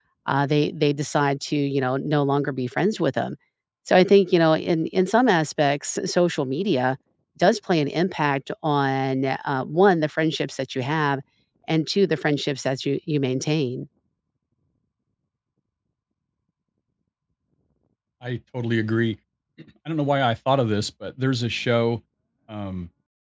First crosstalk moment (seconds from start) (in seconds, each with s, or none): none